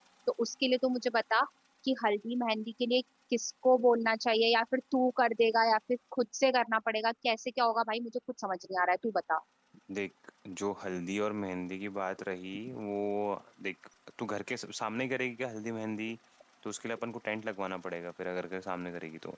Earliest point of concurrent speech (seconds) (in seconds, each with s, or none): none